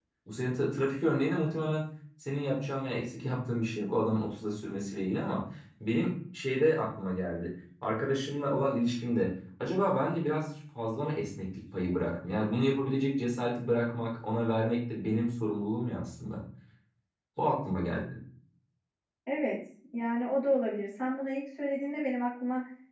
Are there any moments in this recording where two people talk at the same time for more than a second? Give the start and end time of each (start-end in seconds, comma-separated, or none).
none